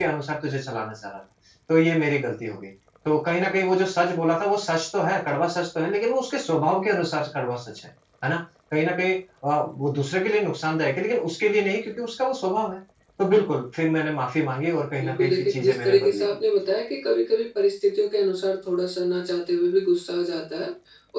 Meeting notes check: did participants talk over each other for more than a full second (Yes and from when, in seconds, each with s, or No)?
Yes, from 15.0 s